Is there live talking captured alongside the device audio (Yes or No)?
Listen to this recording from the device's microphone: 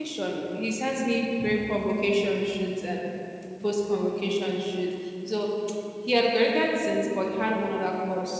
Yes